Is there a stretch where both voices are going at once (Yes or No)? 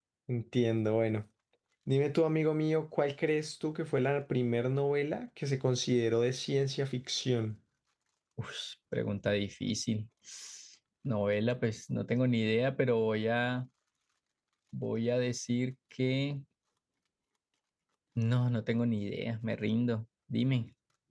No